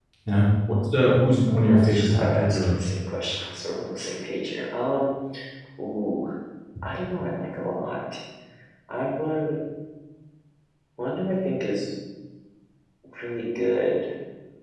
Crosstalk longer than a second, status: present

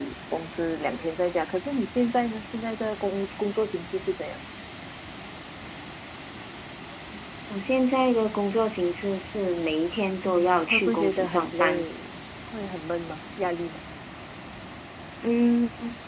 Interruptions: present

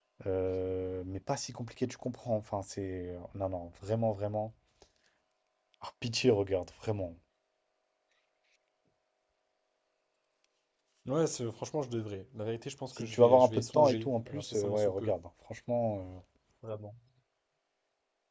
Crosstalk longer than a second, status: present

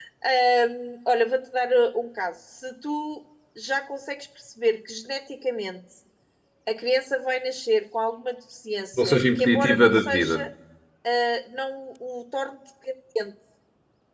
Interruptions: present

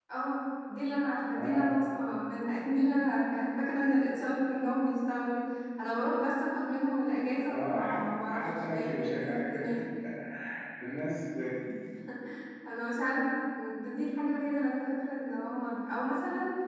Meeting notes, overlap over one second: present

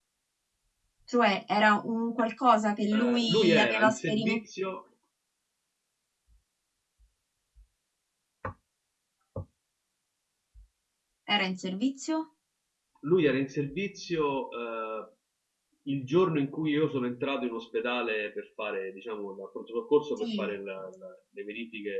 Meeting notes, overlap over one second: present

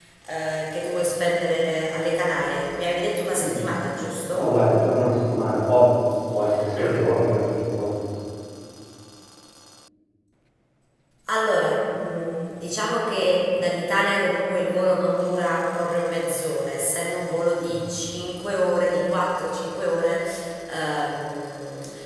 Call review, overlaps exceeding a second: none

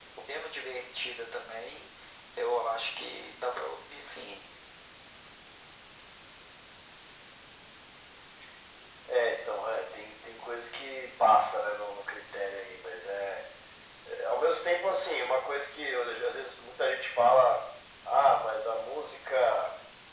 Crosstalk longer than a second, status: none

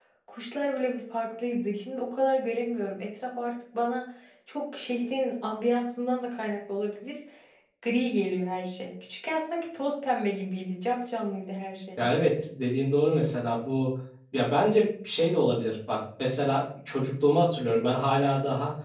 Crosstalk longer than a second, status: none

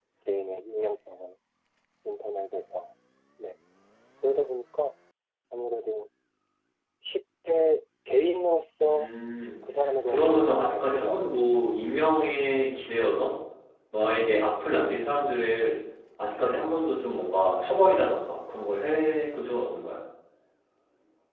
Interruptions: present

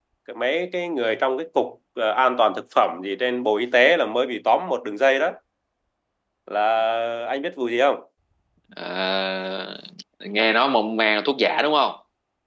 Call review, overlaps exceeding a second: none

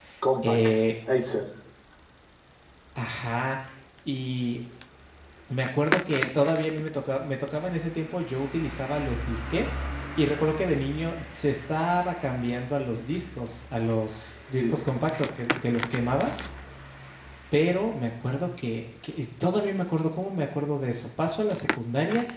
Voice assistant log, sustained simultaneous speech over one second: none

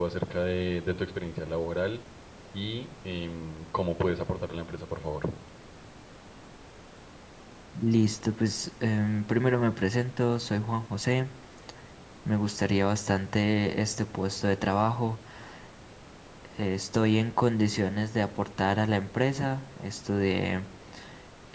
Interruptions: none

